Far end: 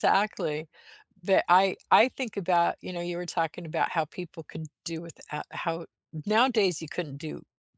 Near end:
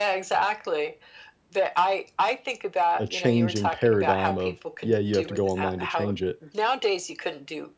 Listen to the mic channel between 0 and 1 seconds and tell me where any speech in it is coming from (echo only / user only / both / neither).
echo only